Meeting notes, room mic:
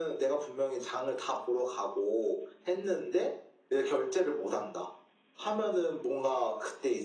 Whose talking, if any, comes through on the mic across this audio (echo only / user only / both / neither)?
echo only